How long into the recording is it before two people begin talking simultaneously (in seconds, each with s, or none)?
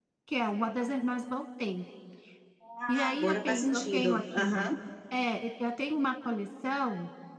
2.9 s